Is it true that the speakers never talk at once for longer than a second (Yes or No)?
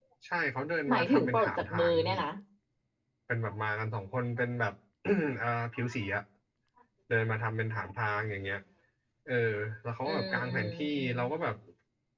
No